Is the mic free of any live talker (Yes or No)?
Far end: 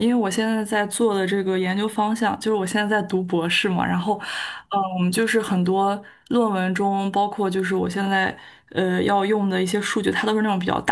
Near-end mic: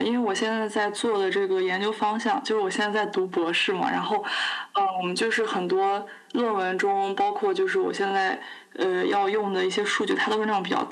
Yes